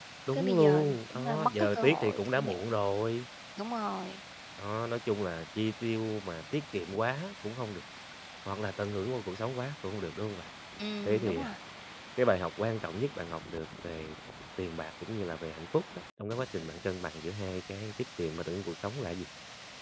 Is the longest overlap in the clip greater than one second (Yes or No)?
Yes